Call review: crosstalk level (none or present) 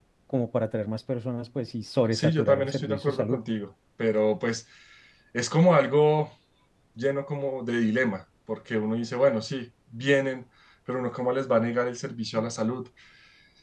present